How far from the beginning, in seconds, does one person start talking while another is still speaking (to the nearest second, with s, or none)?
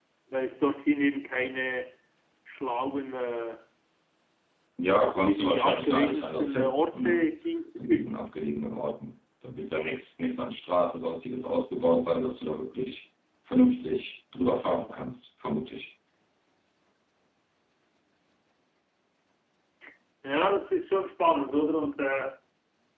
5 s